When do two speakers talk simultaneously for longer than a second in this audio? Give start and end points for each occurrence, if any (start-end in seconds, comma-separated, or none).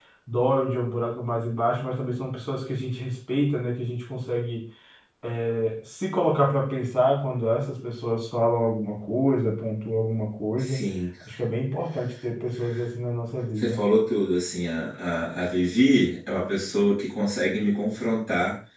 none